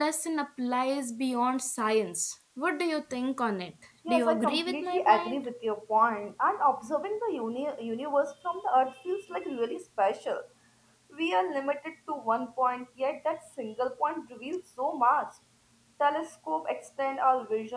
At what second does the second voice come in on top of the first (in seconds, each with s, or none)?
4.0 s